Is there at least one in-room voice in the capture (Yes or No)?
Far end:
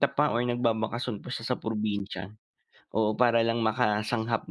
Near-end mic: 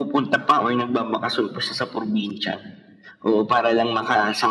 No